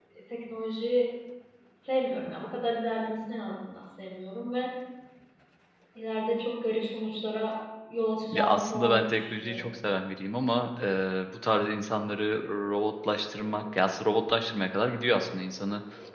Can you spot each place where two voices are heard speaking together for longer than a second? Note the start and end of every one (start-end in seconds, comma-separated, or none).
8.3-9.7